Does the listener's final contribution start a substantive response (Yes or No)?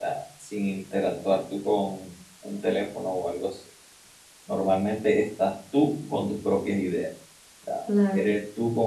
No